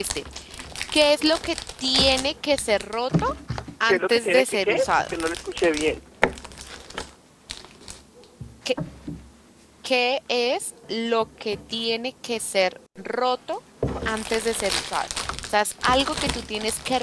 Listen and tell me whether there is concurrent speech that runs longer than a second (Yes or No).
Yes